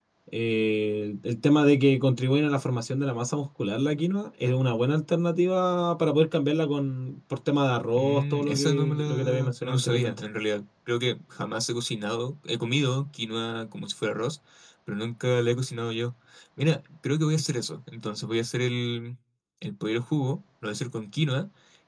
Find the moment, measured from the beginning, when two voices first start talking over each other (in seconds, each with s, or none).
8.0 s